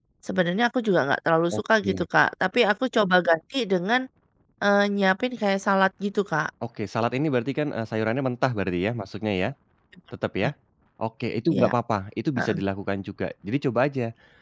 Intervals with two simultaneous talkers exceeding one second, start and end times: none

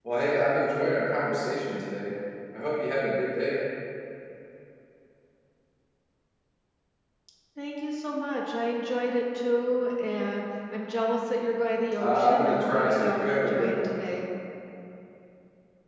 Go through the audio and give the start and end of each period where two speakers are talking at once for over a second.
12.0-13.9

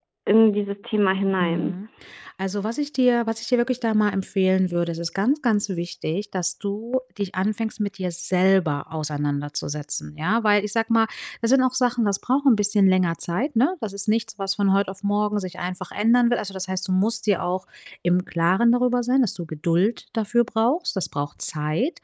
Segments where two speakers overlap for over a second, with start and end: none

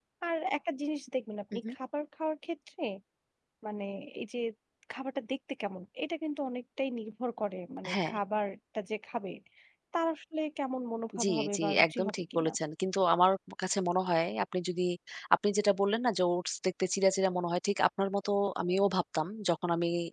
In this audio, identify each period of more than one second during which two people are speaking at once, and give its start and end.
11.2-12.5

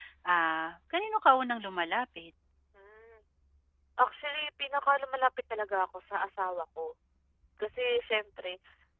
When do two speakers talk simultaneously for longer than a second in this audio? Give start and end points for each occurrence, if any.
none

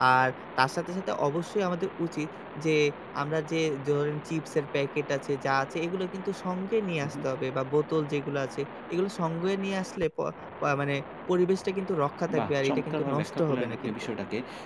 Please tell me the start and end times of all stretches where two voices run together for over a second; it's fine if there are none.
12.4-13.9

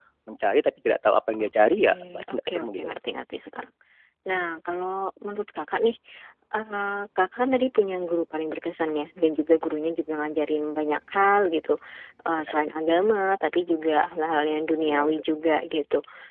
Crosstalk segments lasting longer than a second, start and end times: 1.4-3.0

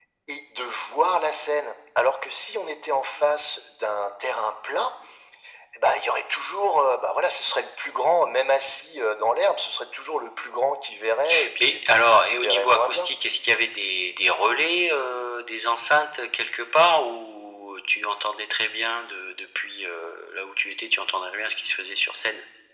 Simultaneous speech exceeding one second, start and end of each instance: 11.6-13.1

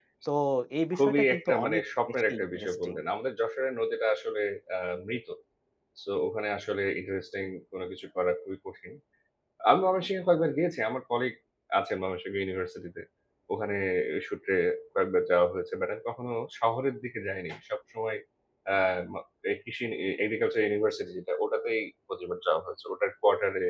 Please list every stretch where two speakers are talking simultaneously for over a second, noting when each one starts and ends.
1.0-2.9

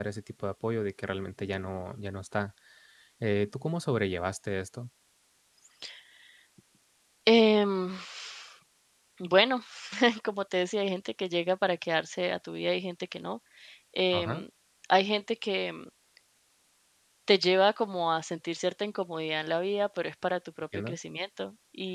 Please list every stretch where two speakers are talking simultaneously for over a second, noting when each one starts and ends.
none

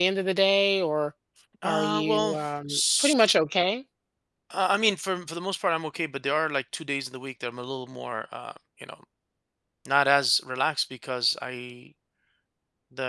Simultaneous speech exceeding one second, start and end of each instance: 1.6-3.1

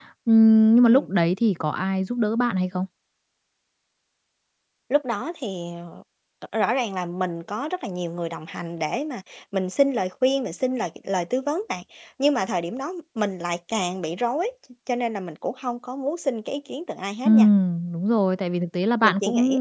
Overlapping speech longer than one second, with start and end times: none

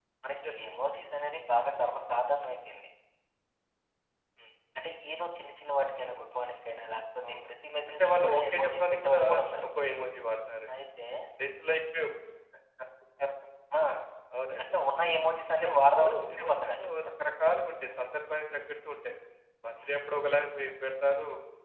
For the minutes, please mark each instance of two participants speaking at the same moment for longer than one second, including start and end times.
7.9-9.2, 15.5-16.9

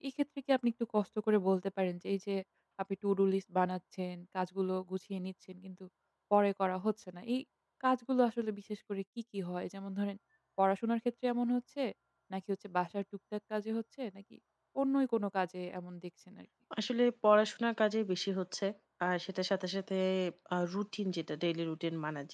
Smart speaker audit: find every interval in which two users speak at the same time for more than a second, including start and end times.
none

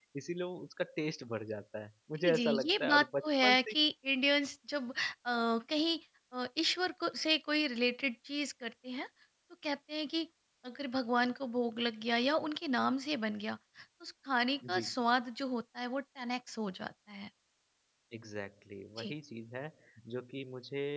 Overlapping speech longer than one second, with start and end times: 2.2-3.7

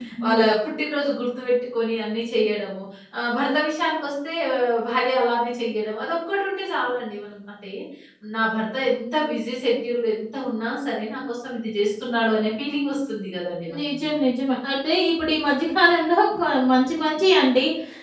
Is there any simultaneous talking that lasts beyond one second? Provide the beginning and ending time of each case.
none

